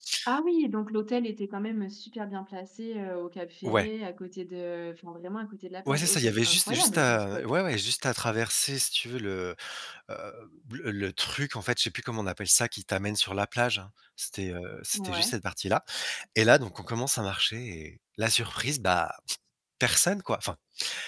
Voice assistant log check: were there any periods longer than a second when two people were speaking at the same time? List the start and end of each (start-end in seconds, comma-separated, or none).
5.9-7.4